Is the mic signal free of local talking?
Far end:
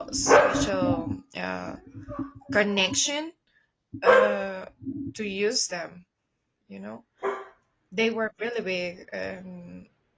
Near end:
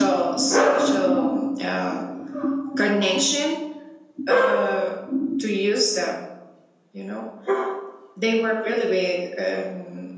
Yes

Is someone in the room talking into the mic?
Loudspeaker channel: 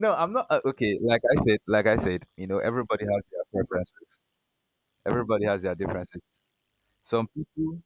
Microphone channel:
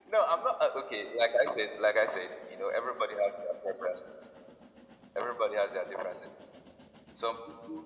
No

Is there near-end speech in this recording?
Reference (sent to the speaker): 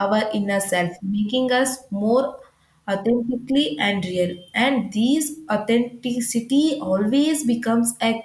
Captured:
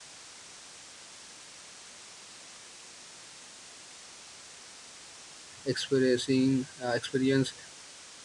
Yes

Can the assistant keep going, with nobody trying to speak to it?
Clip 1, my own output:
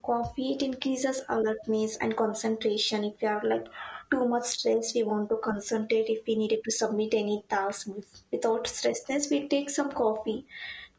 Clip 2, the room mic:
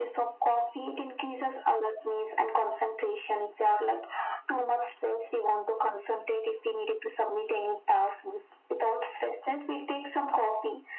Yes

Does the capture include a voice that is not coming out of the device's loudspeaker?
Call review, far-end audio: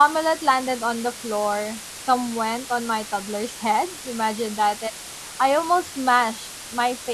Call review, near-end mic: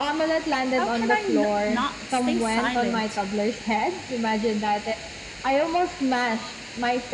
Yes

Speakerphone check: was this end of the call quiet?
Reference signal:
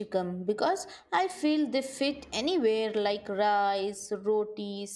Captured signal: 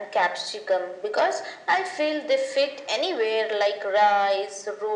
Yes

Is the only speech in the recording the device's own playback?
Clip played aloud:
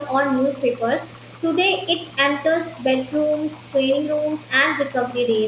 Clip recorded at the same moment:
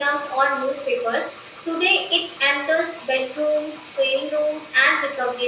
Yes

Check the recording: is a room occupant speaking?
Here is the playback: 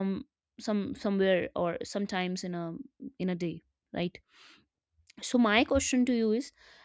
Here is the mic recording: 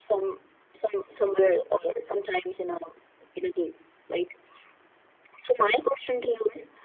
No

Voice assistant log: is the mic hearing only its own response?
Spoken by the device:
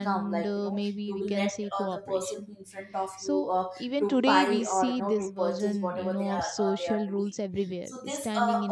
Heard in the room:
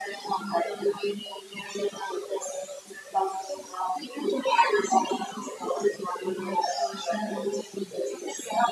Yes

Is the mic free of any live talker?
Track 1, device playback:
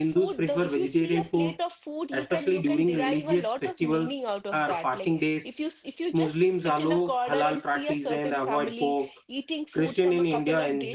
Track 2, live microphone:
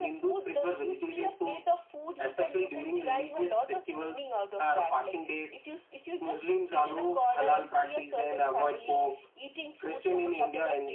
Yes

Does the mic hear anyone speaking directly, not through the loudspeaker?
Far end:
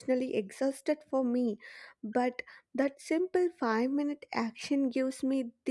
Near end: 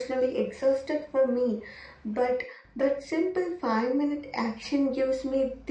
No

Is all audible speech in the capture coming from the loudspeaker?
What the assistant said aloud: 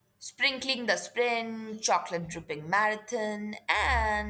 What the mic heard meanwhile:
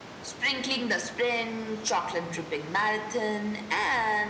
Yes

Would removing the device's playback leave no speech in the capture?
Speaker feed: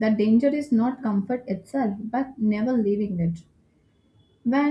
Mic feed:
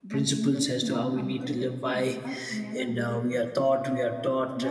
No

